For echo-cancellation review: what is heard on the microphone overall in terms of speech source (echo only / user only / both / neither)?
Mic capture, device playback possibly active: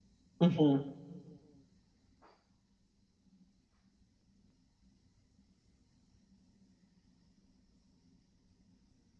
user only